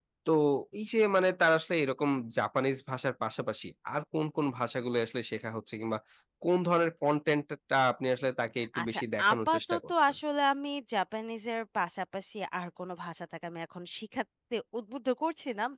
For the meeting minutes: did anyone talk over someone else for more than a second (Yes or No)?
Yes